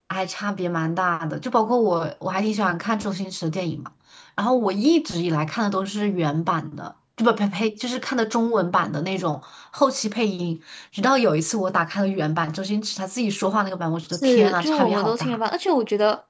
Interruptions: present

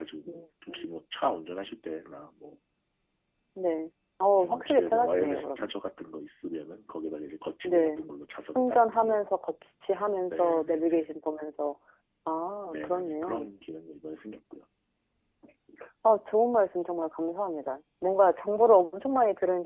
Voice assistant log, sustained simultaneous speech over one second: present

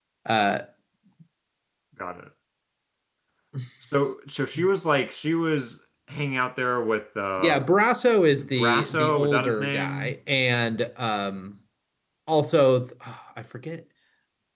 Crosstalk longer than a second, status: present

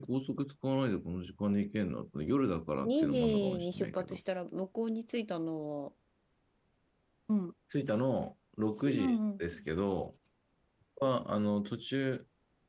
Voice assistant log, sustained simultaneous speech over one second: present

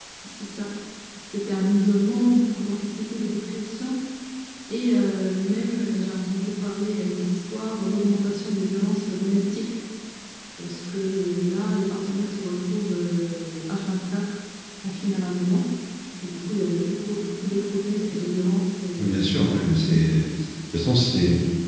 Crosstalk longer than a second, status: present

